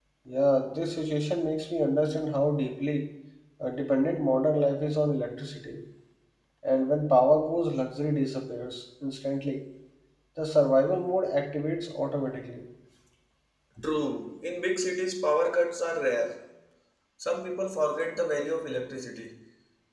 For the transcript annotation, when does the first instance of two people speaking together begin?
none

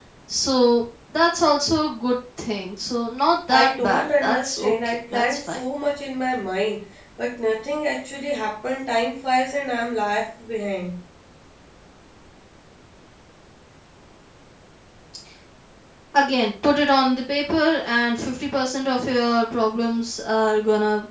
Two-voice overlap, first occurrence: 3.5 s

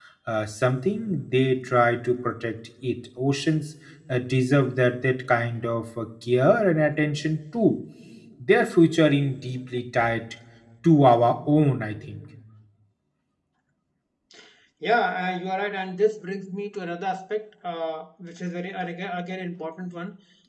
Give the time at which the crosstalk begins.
none

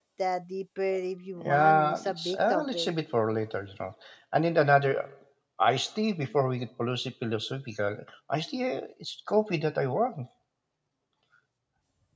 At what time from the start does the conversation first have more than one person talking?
1.4 s

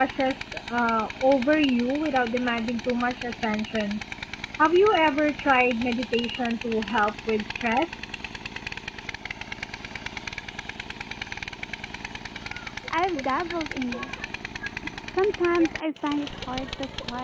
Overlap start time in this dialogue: none

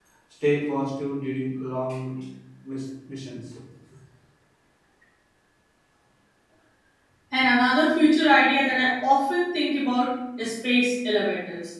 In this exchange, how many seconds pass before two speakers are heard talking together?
none

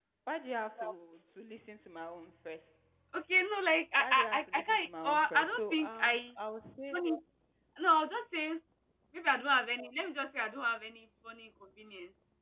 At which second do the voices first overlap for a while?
4.0 s

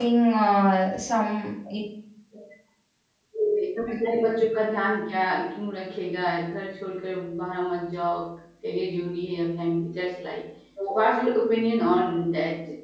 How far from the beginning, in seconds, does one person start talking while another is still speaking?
none

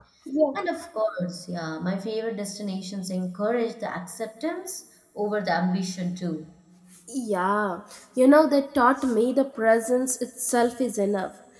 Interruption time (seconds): none

